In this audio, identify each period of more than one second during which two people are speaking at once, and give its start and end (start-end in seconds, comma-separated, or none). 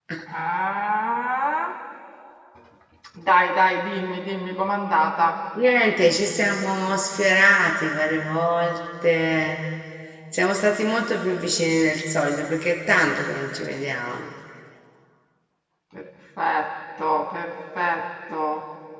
none